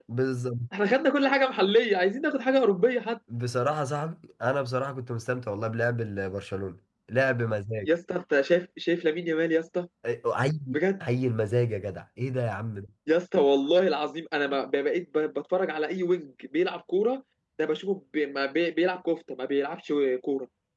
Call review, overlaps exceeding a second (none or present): none